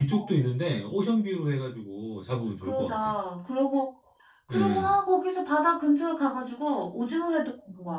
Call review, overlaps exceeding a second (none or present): none